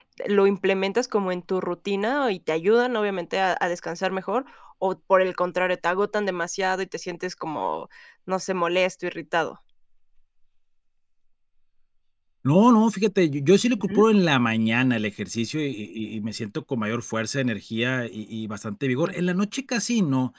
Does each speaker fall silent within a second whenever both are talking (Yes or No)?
Yes